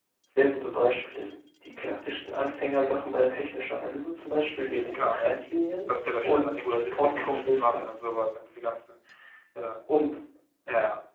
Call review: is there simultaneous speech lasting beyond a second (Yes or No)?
Yes